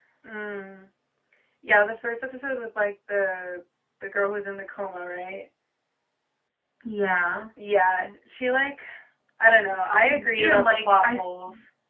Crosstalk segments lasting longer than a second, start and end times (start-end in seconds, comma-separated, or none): 9.9-11.2